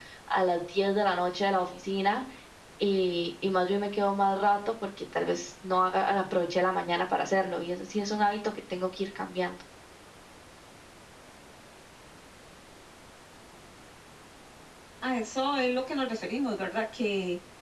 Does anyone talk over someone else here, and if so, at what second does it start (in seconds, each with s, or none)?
none